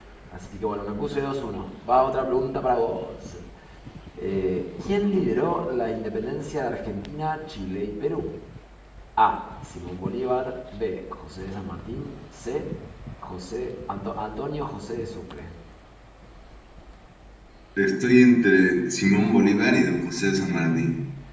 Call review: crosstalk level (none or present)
none